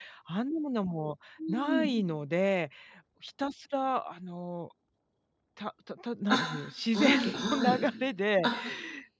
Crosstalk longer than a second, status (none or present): none